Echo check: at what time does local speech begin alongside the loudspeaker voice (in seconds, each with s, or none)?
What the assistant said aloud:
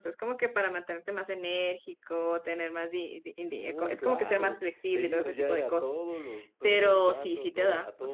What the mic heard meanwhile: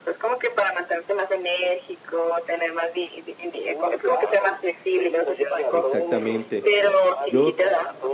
5.7 s